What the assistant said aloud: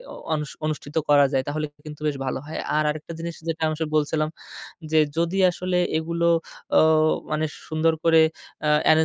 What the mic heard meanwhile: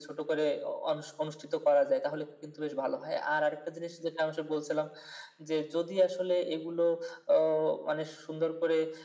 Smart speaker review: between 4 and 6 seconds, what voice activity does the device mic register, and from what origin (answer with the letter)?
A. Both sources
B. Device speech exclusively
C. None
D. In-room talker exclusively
B